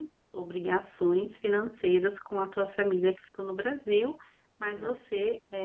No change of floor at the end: Yes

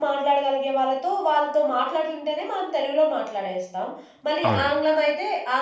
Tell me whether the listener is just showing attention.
Yes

